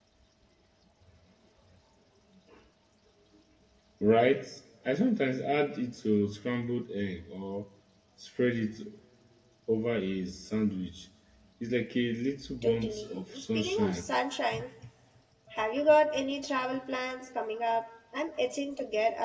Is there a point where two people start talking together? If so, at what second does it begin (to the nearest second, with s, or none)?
13 s